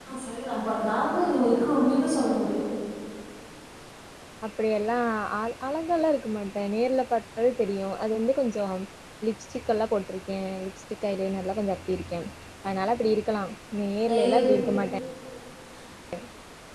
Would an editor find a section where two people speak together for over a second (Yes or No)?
No